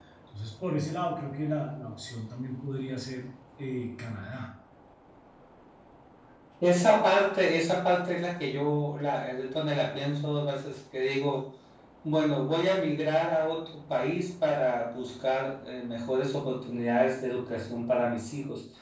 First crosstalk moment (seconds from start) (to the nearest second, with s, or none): none